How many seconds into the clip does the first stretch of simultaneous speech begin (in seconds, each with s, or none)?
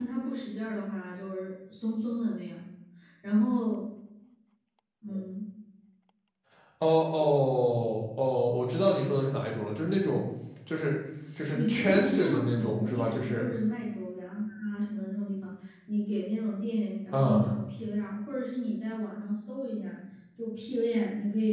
11.5 s